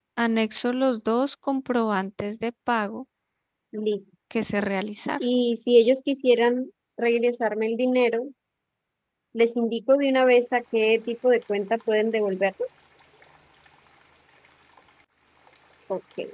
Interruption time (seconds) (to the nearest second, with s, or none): none